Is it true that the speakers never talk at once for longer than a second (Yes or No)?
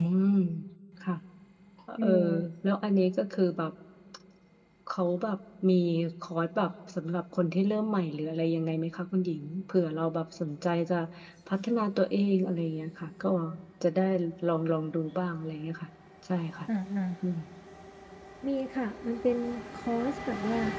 Yes